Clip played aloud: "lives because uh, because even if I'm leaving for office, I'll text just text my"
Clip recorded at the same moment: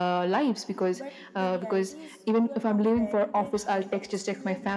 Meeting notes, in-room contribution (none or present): present